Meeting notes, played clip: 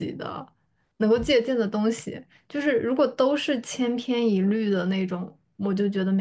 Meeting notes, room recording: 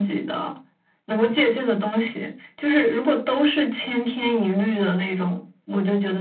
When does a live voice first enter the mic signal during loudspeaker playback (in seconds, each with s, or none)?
none